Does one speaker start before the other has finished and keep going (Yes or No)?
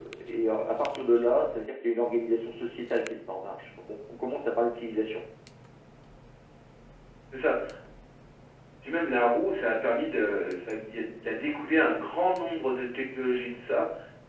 No